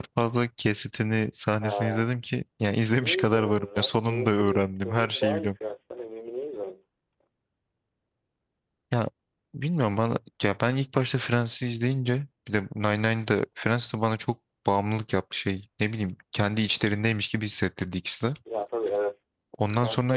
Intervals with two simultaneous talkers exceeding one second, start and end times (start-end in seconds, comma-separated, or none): 3.0-5.5